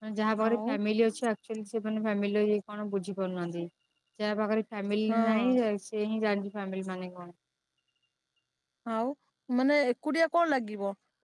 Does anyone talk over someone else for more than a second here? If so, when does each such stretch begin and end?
none

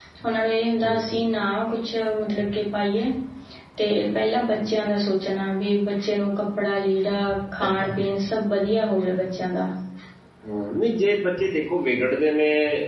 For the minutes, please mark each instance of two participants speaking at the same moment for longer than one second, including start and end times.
none

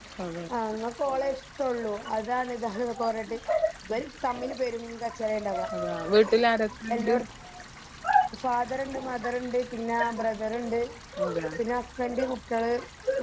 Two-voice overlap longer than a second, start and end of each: none

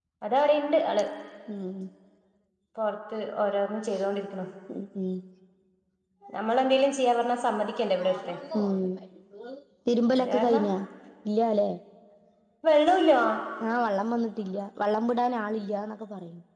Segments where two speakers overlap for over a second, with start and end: none

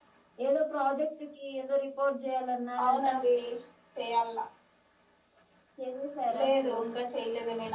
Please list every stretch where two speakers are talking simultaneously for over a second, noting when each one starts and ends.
none

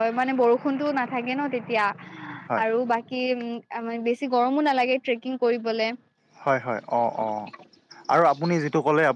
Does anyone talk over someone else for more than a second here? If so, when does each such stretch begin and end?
none

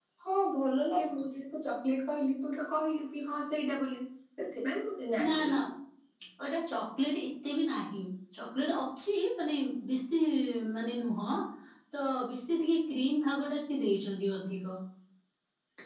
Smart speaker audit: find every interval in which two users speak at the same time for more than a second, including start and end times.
none

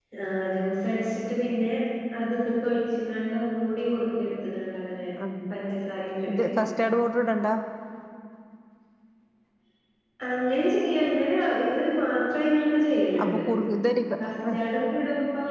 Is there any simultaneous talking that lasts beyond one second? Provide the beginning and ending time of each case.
none

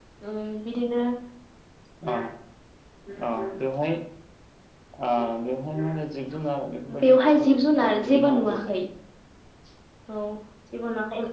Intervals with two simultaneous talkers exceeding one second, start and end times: 7.0-8.7

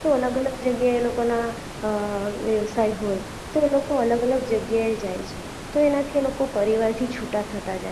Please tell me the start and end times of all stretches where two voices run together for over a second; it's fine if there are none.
none

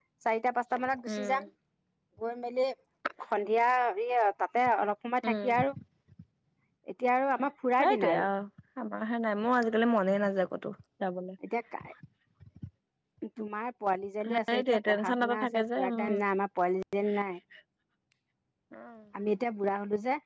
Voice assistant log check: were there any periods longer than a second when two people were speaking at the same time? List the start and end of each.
14.5-16.1

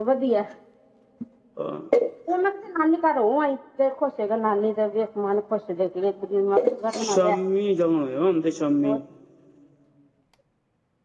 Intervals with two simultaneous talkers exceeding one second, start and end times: none

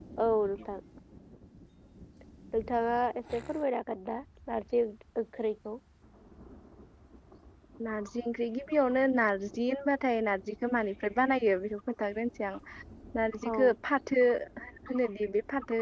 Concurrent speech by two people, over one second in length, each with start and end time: none

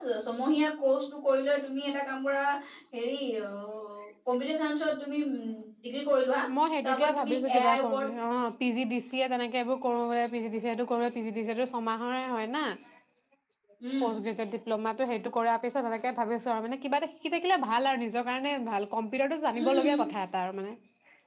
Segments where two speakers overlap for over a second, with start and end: 6.8-8.1

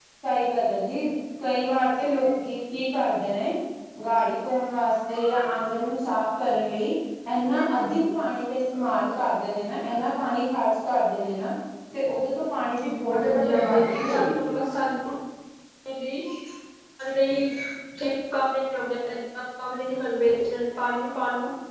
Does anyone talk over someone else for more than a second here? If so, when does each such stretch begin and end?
13.3-14.5

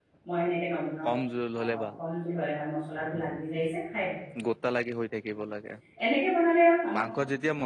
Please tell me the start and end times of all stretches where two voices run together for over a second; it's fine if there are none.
none

